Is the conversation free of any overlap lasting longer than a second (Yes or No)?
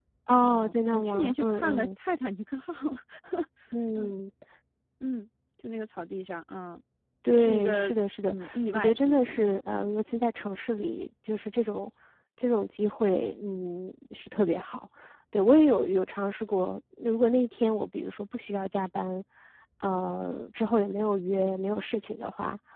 No